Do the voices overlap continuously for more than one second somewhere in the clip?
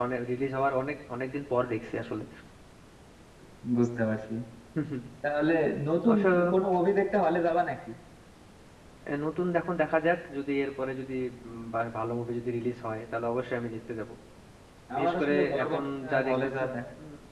Yes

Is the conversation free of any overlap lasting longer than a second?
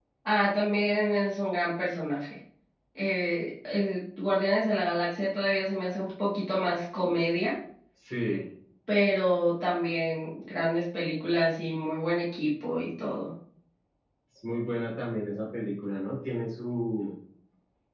Yes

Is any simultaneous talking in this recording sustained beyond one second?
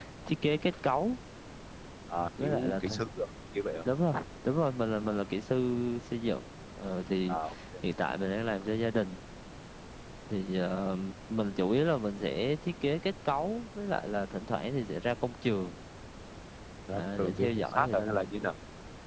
Yes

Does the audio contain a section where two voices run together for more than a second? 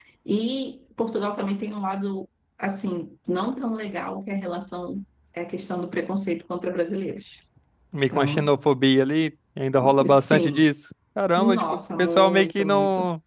Yes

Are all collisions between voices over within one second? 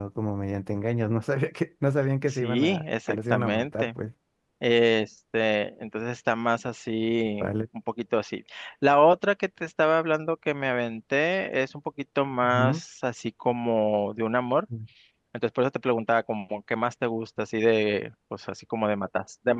No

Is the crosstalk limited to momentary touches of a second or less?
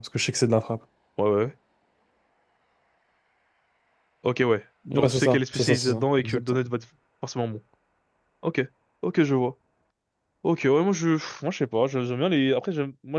No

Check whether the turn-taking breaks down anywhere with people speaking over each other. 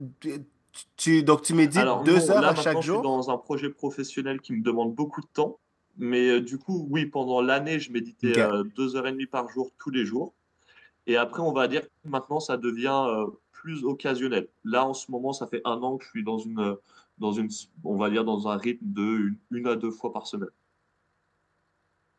Yes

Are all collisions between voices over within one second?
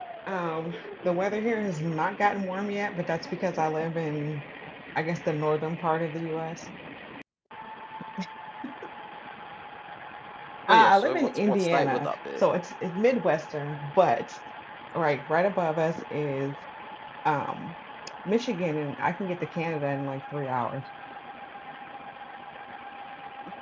No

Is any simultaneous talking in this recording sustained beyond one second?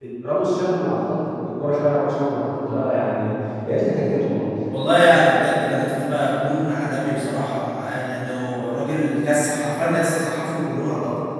No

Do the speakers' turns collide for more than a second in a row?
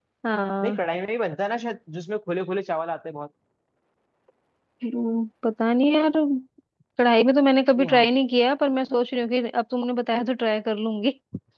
No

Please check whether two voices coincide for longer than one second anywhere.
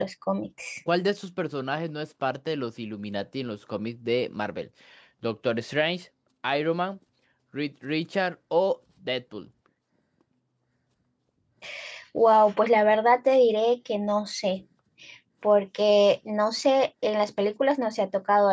No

